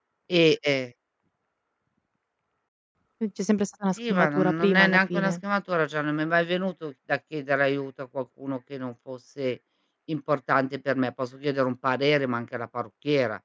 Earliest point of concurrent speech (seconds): 4.0 s

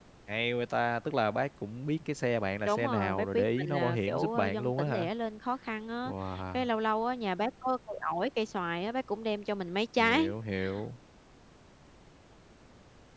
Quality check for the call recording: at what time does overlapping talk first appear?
2.6 s

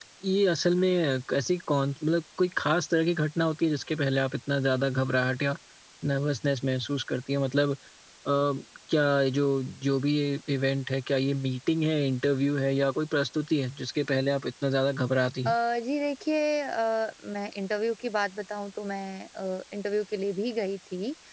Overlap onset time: none

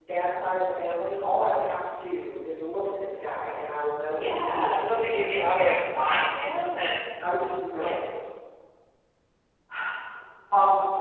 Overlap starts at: 4.1 s

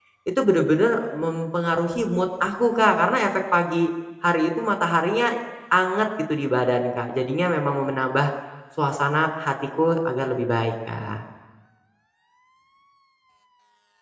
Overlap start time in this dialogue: none

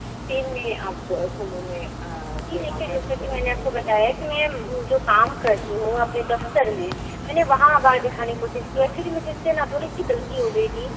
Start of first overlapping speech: 2.4 s

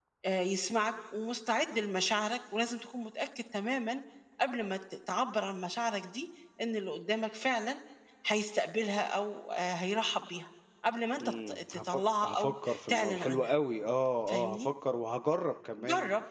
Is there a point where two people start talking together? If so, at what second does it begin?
11.2 s

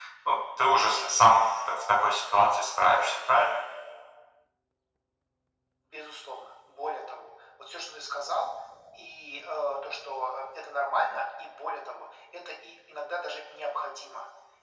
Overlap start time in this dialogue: none

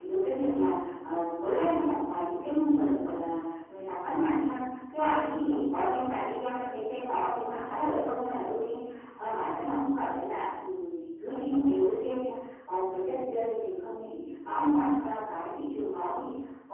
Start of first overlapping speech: none

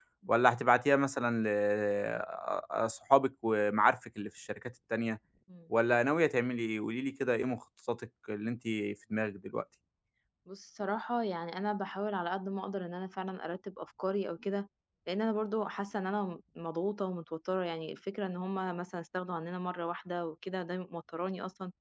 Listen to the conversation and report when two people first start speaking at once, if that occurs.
none

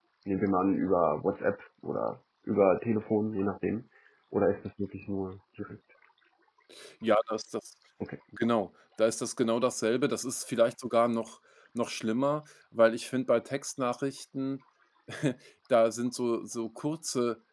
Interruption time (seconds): none

